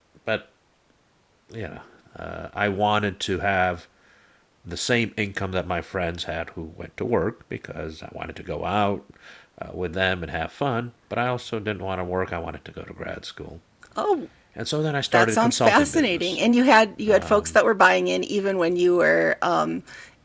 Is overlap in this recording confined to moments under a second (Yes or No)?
No